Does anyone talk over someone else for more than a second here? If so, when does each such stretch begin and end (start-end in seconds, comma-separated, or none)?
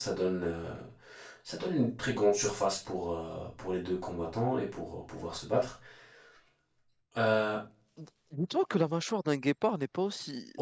none